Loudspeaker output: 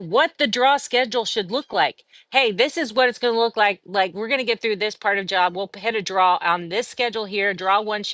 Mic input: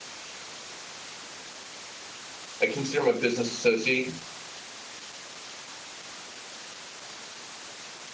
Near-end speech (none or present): present